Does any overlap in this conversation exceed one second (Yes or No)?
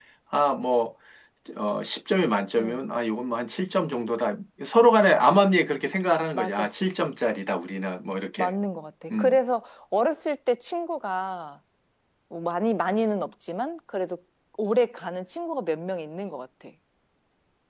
No